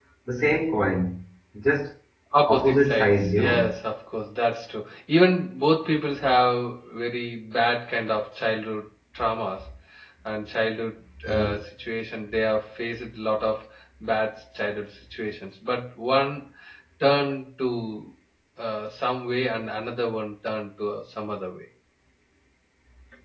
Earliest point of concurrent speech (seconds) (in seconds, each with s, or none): 2.5 s